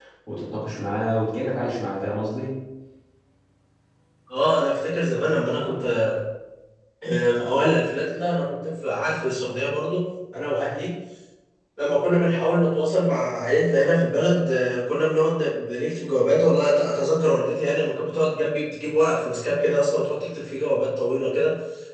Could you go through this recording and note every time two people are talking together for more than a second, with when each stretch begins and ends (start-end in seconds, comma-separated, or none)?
none